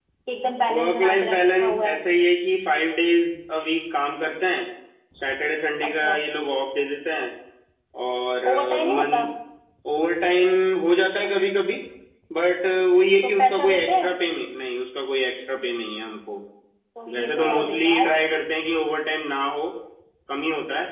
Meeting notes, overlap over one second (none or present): present